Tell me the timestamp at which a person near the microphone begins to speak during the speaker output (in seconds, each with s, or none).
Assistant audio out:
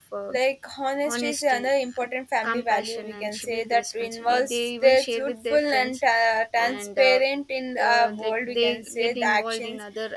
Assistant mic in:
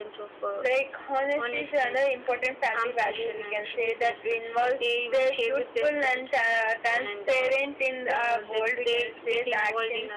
none